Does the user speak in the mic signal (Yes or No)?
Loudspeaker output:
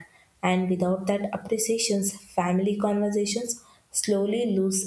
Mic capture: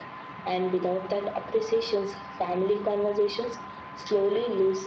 No